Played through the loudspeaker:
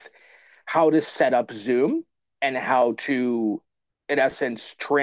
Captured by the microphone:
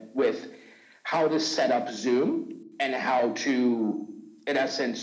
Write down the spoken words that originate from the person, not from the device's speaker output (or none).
none